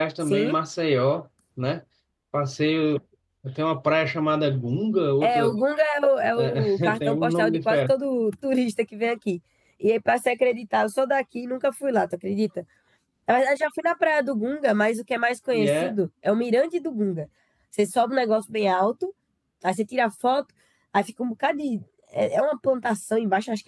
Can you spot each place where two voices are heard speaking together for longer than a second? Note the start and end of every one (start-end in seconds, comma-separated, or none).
6.4-7.9